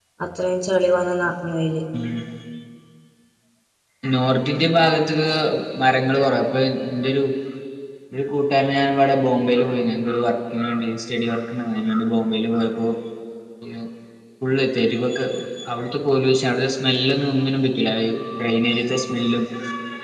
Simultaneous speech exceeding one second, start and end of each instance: none

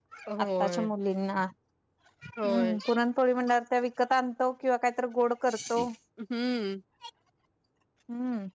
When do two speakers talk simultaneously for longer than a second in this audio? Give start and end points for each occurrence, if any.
none

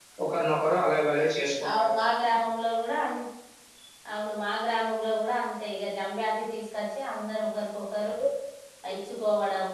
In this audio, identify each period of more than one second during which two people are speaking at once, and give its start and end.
none

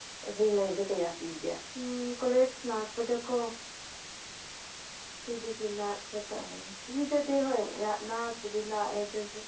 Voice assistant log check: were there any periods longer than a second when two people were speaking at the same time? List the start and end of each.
none

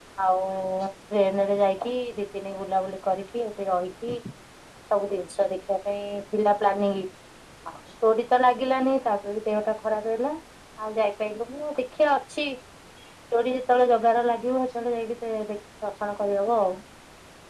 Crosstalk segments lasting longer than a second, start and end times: none

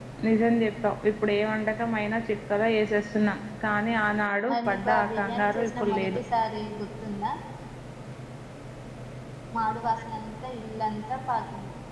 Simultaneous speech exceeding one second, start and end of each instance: 4.5-6.2

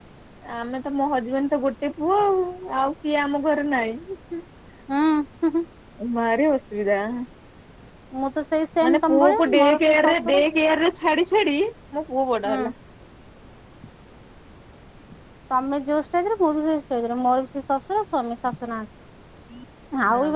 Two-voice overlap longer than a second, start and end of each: 8.9-10.4

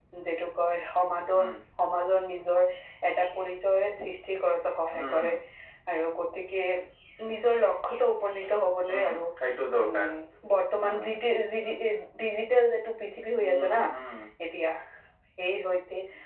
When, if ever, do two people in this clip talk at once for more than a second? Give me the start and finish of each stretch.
none

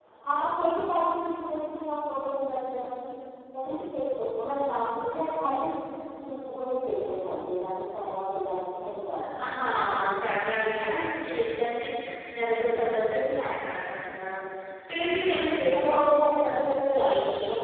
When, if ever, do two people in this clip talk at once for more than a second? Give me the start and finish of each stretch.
none

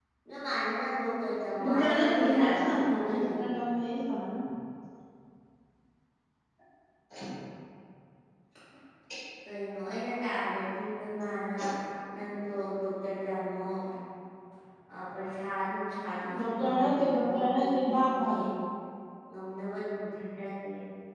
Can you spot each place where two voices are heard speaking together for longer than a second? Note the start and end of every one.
1.6-3.5, 16.4-18.4

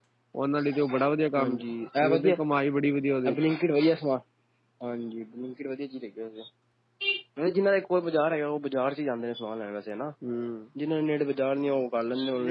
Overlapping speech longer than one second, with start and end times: none

